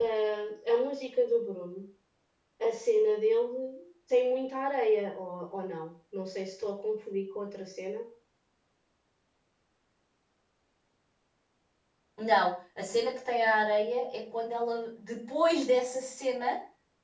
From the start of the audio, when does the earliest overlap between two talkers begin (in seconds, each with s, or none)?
none